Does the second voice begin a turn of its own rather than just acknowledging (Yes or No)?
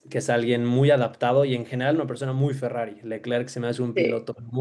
No